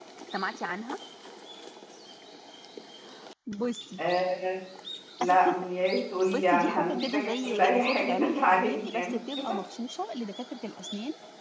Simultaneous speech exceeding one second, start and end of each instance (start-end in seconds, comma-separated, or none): 6.3-9.1